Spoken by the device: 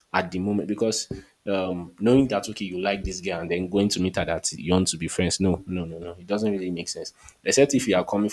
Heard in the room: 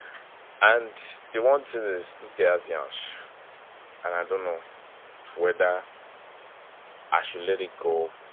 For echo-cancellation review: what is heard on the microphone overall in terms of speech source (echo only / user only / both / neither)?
user only